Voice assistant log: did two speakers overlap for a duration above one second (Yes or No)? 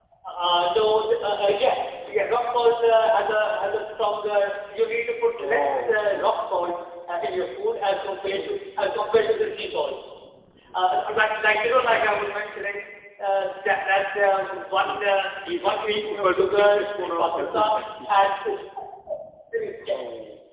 Yes